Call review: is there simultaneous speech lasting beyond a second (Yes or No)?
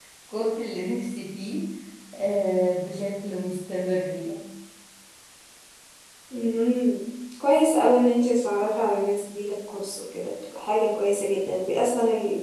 No